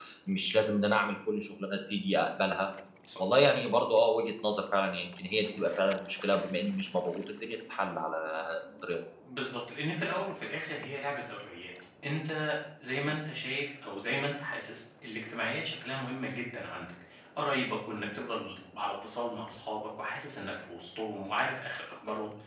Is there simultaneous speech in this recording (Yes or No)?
No